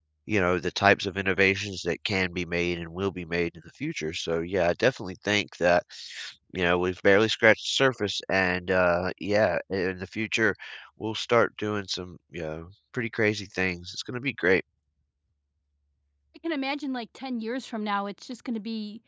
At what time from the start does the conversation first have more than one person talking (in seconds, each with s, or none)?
none